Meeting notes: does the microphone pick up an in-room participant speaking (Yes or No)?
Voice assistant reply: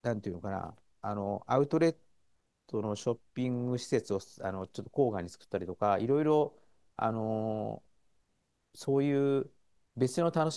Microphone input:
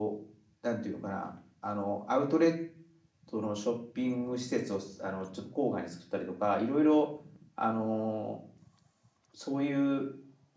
No